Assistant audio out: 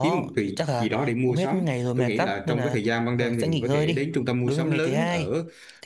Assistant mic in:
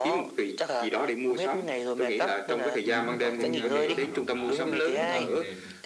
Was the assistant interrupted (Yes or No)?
Yes